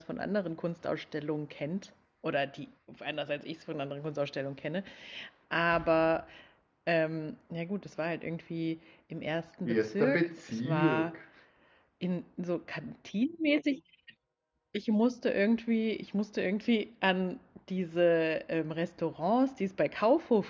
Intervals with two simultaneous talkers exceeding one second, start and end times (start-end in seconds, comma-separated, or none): 9.6-11.1